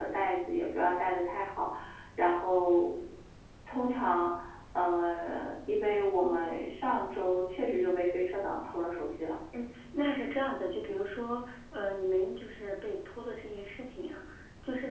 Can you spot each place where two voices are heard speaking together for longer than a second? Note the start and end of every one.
none

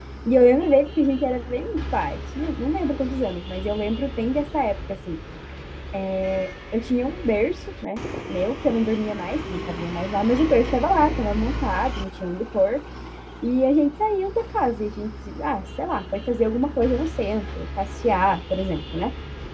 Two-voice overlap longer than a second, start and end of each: none

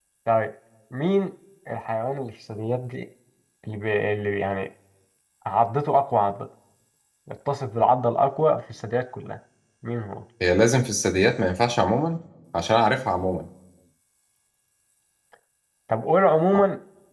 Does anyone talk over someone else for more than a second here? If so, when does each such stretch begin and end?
none

